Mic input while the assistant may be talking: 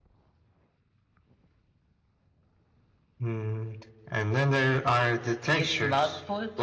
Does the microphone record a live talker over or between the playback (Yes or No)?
Yes